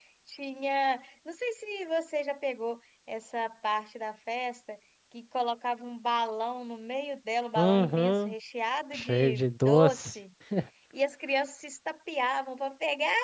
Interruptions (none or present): present